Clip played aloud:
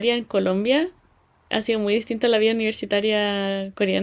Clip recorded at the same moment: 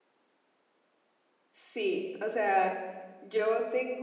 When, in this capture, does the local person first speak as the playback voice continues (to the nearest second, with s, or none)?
2 s